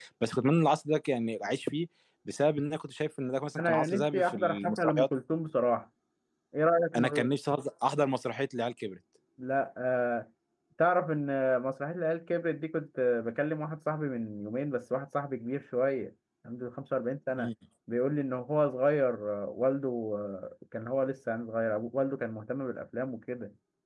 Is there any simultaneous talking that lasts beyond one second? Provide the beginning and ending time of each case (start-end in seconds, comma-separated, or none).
3.6-5.1